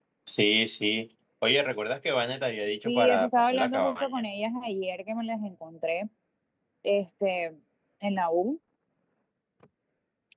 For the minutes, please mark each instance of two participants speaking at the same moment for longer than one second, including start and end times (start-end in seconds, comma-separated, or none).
2.9-4.1